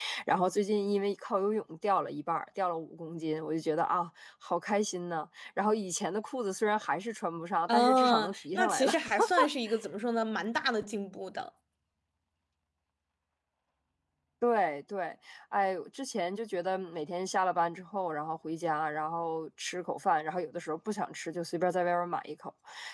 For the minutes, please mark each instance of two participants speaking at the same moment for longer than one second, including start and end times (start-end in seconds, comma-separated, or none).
7.7-8.9